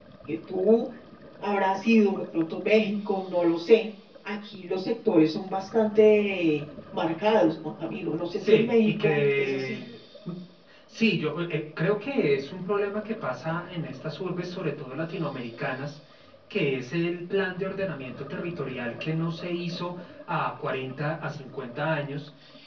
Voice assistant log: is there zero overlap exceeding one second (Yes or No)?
No